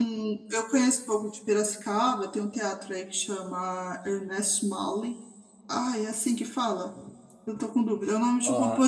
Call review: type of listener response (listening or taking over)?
taking over